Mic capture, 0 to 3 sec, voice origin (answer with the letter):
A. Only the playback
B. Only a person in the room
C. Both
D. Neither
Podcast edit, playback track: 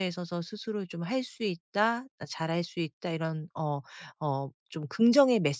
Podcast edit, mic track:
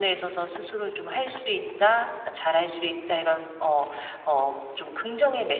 A